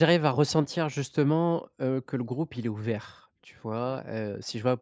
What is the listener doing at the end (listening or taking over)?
listening